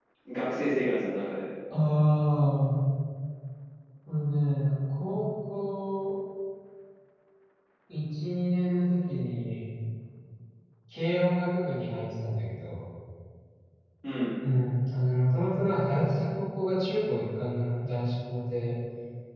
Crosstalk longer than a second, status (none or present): none